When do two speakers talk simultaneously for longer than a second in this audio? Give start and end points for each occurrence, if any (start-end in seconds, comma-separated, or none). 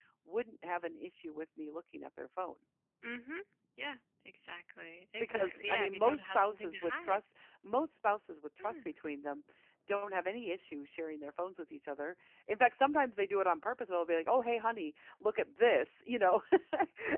5.2-7.2